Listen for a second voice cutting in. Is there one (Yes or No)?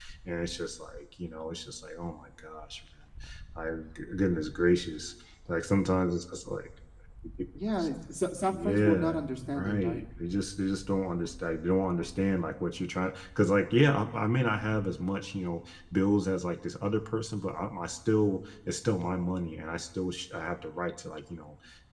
Yes